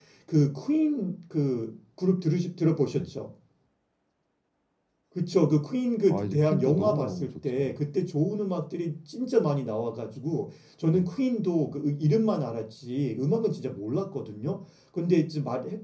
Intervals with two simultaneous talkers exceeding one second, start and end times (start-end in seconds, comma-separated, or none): 6.1-7.7